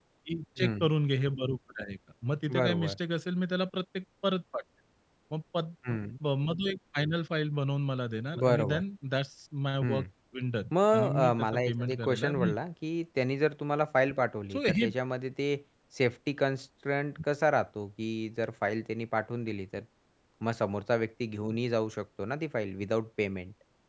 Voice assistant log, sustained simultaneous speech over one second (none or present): present